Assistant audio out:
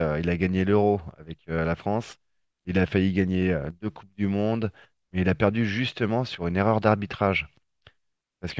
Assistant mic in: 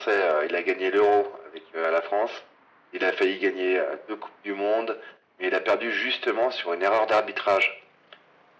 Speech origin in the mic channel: echo only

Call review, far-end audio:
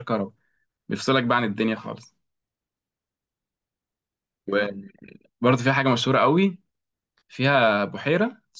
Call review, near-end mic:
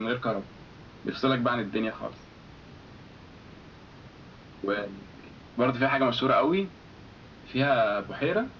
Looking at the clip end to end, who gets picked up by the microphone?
echo only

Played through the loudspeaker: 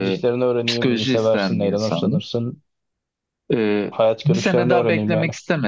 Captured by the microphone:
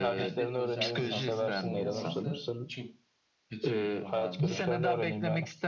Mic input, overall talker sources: both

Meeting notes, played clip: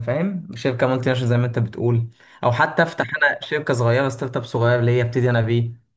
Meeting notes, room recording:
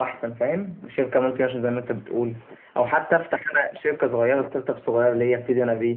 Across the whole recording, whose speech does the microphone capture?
echo only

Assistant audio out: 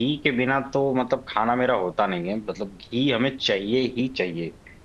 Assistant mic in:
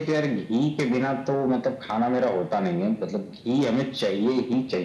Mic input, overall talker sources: echo only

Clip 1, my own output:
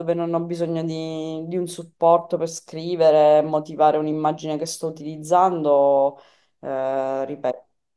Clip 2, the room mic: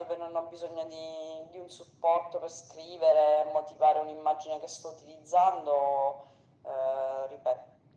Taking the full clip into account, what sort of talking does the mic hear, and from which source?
echo only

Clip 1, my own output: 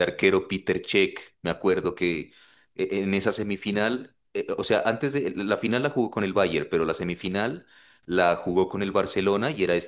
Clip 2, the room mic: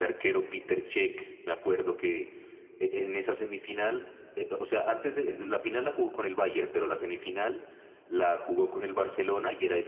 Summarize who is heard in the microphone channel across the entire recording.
echo only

